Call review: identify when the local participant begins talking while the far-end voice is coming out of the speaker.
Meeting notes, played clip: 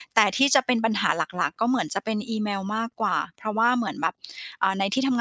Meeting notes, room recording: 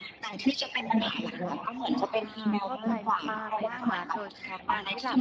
2.2 s

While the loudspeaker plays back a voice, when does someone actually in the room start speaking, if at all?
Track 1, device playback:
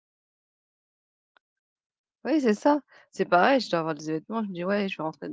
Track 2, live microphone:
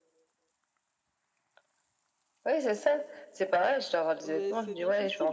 4.2 s

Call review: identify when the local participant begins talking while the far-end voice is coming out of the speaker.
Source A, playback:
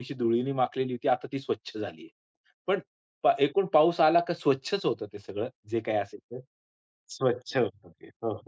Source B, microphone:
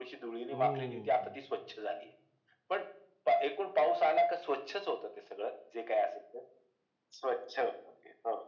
0.5 s

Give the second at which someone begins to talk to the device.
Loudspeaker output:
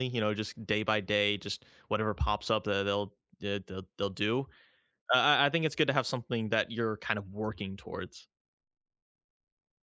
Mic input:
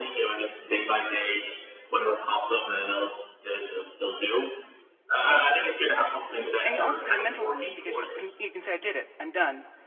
6.6 s

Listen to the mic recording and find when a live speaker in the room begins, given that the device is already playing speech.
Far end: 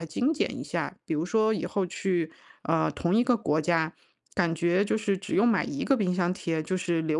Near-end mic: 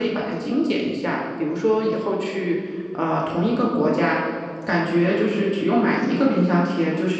none

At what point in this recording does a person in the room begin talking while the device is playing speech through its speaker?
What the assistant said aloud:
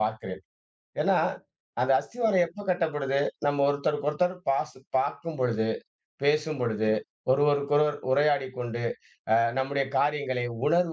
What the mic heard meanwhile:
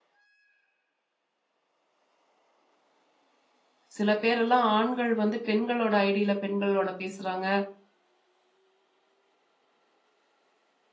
4.0 s

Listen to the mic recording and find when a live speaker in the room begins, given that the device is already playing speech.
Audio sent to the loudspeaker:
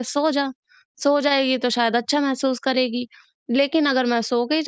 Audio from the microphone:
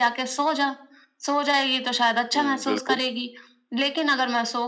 2.3 s

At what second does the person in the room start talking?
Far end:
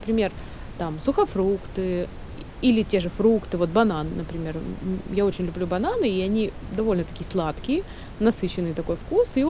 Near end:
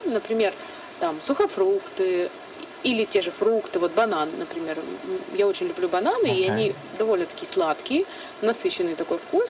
6.3 s

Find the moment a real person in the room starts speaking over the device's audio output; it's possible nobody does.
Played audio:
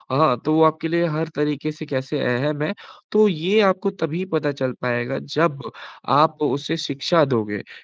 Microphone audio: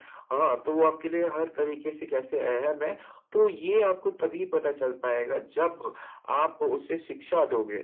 none

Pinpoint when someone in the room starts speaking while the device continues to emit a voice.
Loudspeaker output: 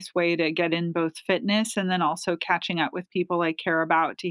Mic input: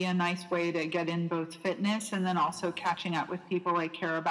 none

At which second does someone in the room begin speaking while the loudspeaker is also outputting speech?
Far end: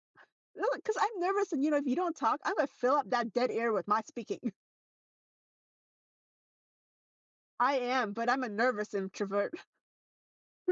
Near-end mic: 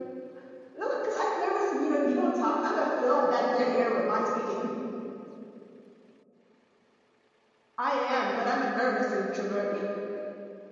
none

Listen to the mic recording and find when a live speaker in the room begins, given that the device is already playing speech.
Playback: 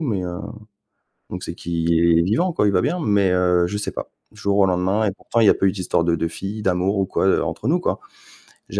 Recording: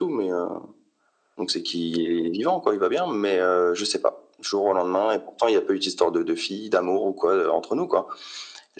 none

